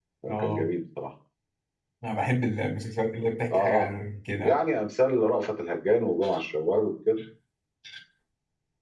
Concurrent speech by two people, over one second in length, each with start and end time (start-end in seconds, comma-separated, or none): none